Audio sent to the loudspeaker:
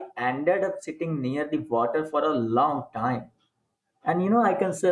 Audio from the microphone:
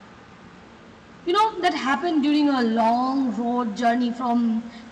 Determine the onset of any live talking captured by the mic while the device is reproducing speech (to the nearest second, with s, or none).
1 s